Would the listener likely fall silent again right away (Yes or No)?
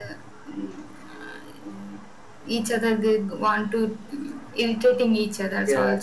Yes